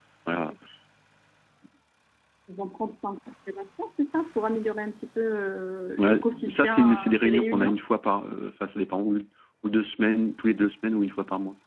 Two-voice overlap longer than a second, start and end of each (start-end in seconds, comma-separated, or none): 6.0-7.7